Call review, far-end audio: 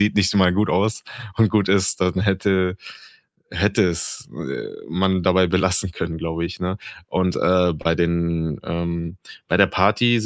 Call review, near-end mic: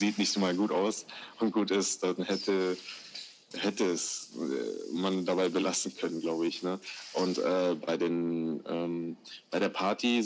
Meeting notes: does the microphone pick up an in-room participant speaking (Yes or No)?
No